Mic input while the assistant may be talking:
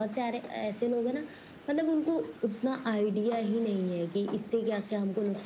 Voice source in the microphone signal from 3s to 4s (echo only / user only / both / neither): echo only